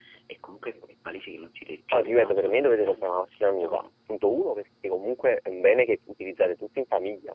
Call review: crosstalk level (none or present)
present